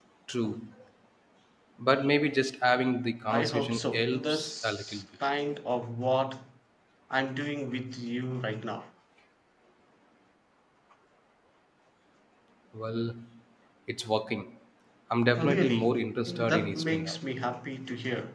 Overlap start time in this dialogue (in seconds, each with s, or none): 3.3 s